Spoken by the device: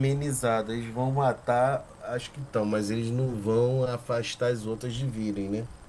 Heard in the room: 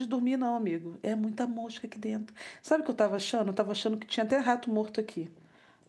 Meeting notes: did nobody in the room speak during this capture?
No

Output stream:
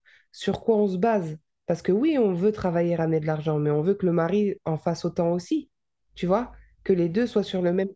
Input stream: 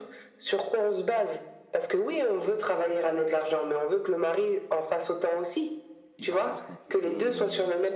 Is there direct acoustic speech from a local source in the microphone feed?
Yes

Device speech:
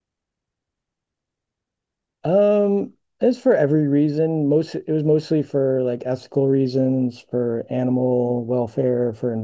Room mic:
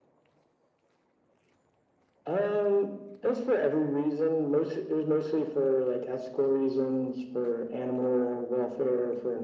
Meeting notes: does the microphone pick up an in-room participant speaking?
No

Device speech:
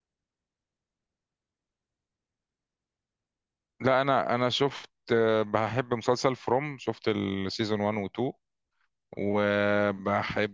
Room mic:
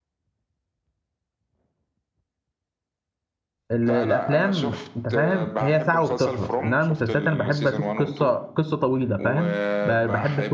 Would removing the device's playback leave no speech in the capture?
No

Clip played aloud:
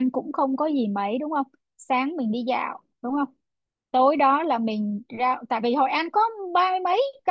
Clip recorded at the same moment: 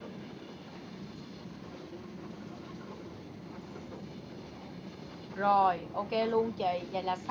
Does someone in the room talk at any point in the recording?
Yes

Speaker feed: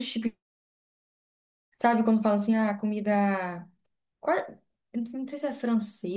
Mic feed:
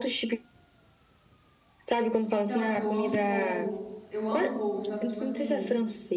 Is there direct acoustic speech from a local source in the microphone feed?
Yes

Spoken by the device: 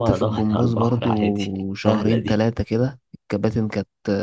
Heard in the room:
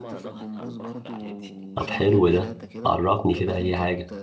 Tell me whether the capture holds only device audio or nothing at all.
No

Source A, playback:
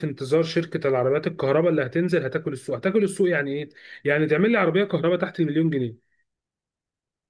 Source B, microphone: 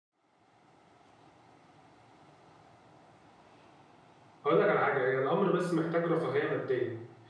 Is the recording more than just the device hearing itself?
Yes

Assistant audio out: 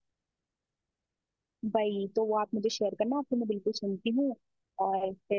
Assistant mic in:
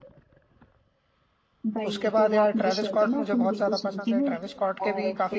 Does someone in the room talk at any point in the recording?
Yes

